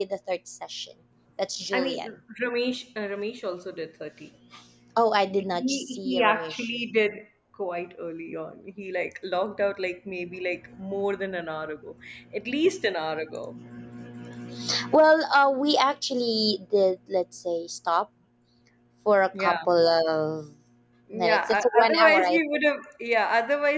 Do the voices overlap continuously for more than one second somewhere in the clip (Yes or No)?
Yes